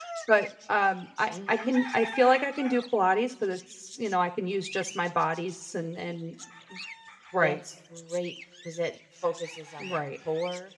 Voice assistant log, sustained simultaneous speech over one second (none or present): none